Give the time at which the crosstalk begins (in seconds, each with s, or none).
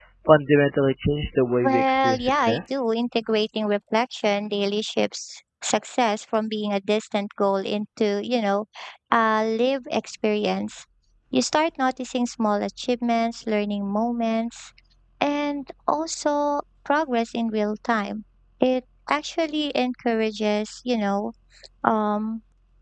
1.6 s